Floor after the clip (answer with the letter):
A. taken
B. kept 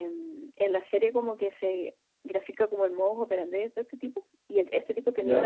B